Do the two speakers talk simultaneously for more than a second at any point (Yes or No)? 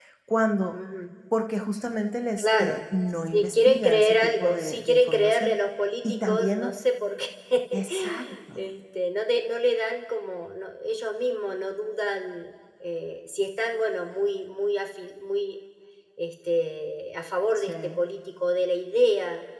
Yes